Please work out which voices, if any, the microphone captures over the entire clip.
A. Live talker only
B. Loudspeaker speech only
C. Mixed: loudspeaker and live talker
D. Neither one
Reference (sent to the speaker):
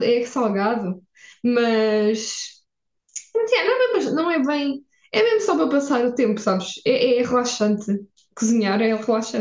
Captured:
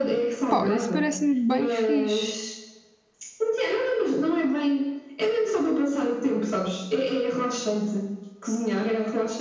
C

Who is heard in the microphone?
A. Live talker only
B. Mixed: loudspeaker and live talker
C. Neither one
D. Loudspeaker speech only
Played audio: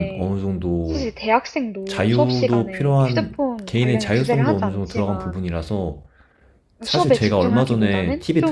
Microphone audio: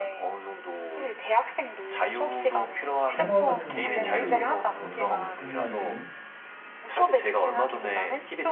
B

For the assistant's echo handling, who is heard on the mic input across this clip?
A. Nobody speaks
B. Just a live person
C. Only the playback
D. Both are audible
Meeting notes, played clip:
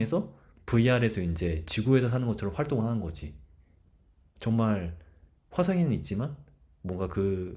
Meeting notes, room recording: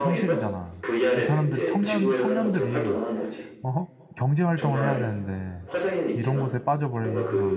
D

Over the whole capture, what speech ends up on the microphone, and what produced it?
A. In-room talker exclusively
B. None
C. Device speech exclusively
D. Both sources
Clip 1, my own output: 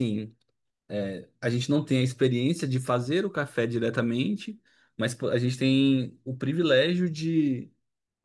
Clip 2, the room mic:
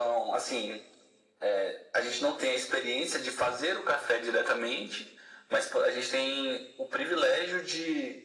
C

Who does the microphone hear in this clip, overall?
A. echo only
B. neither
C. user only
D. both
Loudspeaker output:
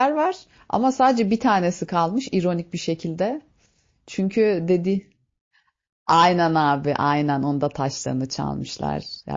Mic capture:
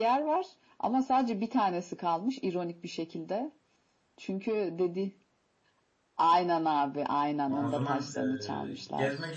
D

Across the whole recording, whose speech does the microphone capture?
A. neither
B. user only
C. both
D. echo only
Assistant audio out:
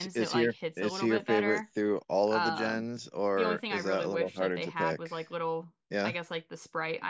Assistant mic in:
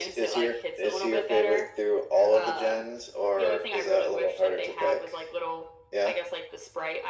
D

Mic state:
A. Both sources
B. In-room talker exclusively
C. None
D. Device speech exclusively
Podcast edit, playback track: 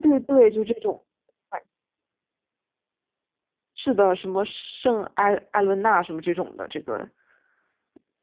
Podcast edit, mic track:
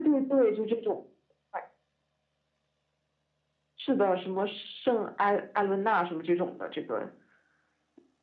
D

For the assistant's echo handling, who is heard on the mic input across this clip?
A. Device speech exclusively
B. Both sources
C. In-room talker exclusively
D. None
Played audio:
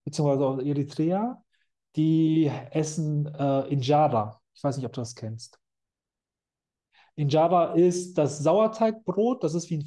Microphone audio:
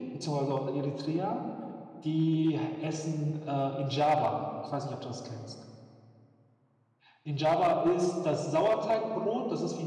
A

